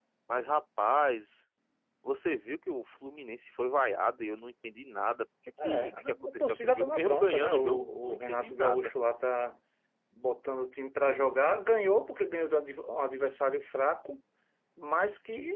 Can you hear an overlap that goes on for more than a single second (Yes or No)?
Yes